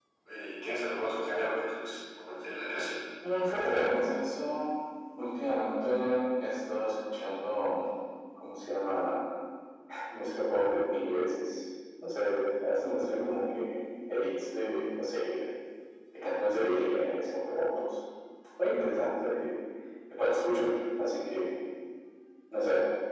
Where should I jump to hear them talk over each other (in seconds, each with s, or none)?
none